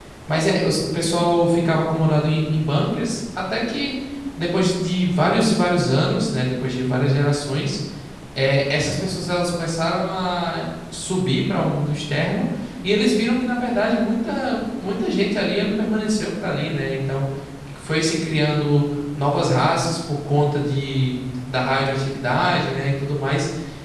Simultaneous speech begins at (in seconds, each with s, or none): none